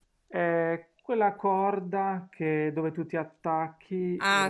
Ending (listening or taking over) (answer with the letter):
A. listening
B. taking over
B